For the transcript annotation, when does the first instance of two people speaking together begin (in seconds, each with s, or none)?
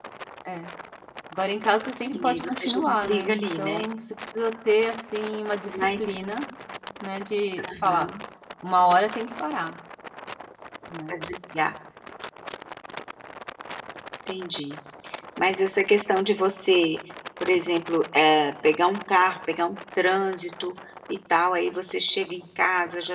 2.0 s